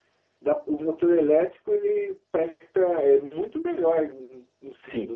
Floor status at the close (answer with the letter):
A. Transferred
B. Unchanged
A